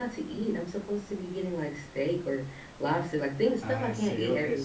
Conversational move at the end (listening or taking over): taking over